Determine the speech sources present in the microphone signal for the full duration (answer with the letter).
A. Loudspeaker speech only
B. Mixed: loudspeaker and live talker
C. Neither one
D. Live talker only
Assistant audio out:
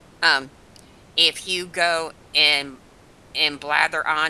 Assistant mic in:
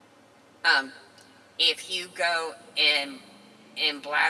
A